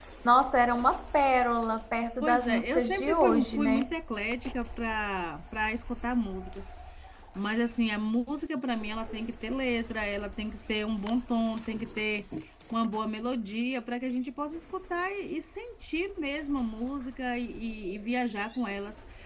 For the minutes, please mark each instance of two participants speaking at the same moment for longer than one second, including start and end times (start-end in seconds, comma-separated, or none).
2.2-3.9